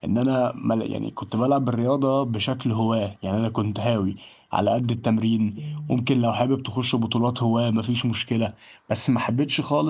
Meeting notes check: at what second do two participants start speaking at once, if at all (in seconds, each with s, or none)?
none